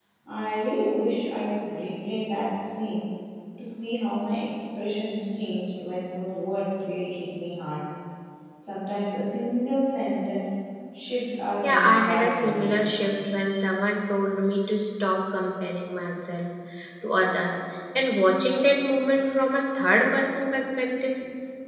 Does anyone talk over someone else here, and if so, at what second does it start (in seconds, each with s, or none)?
11.6 s